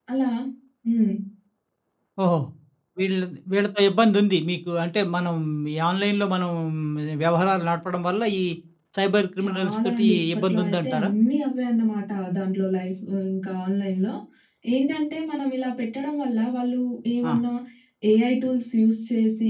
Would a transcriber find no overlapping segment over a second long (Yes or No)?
No